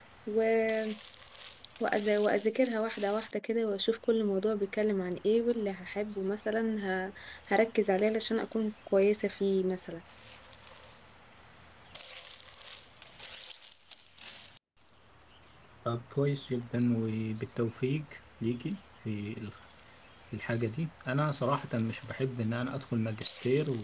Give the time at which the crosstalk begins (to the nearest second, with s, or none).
none